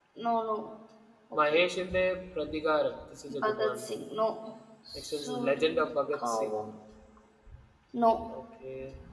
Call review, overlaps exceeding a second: present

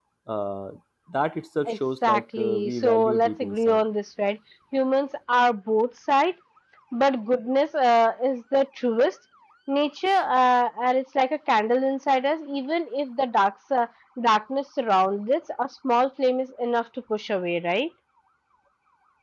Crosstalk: present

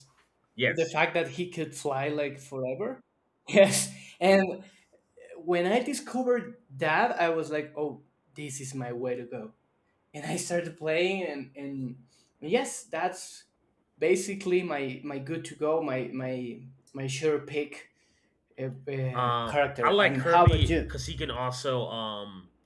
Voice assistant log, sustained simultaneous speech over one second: present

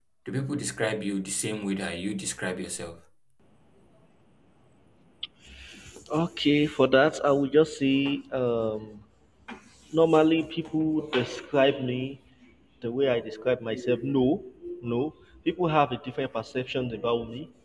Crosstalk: none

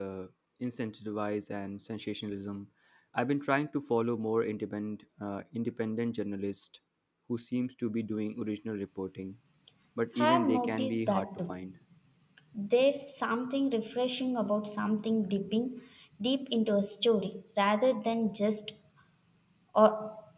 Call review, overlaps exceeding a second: present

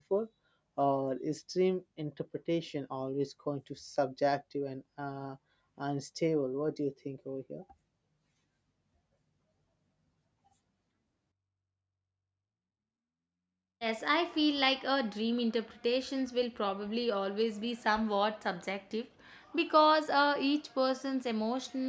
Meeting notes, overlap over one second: none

